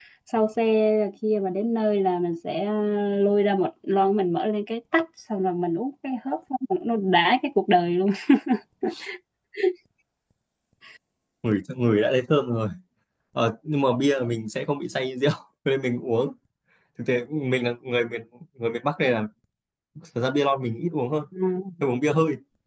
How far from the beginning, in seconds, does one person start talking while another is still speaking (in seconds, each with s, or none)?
none